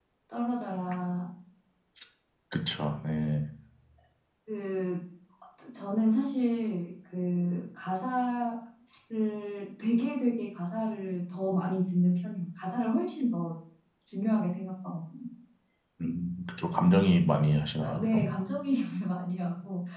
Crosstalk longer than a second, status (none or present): none